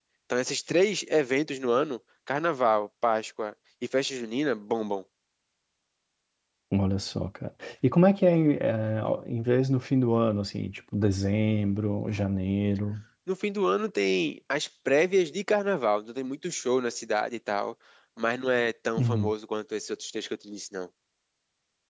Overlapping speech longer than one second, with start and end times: none

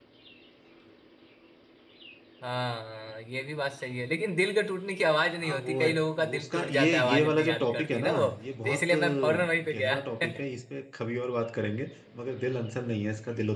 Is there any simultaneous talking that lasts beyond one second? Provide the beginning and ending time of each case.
5.4-10.0

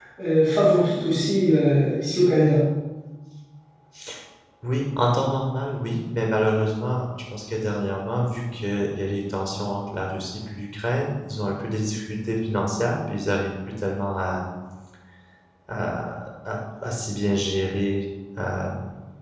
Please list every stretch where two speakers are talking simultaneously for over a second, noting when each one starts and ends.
none

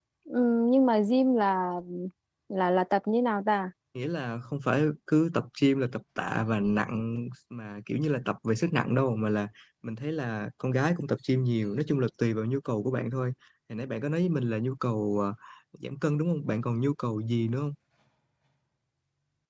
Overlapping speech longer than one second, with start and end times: none

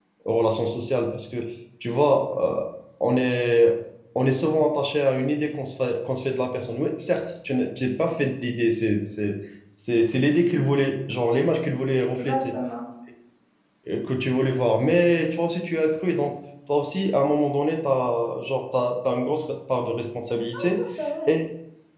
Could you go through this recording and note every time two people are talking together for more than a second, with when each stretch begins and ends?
none

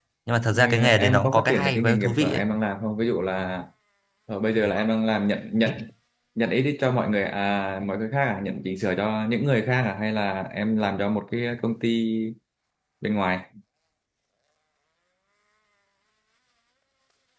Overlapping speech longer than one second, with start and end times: 0.5-2.4

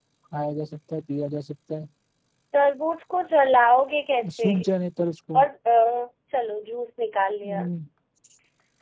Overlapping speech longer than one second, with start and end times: none

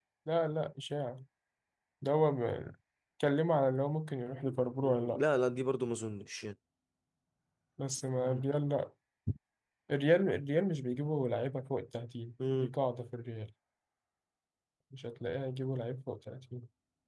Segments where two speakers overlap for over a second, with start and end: none

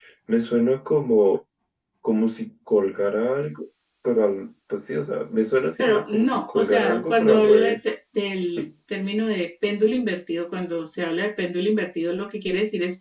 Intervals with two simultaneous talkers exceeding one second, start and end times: 5.8-7.8

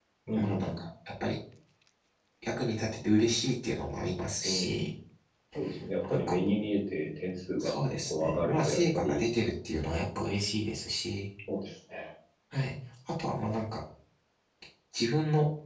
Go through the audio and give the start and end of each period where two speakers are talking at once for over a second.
7.6-9.2

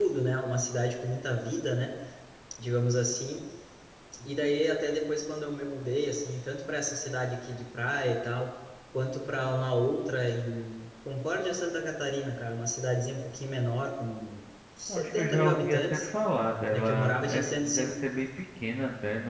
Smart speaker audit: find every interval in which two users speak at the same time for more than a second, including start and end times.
14.9-16.1, 16.7-18.0

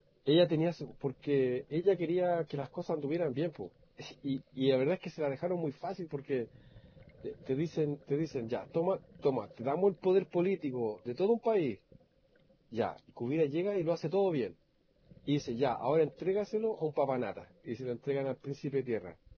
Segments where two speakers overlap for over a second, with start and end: none

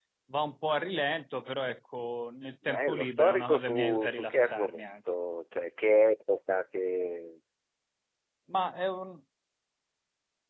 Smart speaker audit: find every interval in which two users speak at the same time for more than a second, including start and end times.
2.6-4.9

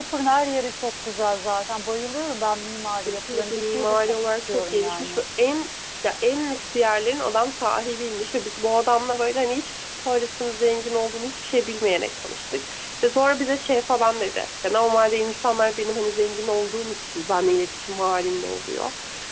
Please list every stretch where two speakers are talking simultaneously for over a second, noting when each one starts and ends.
3.1-5.2

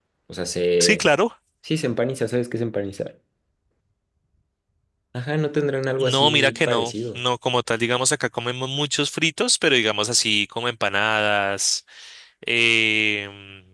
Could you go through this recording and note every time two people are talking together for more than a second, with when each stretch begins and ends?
6.0-7.2

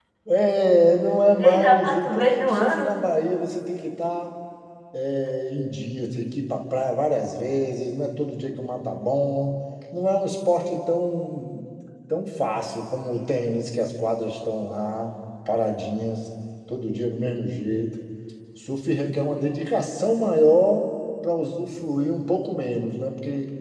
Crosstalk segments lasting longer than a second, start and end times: 1.4-3.0

